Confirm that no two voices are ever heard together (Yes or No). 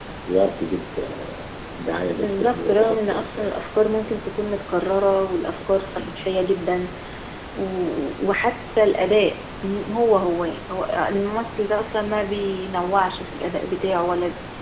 No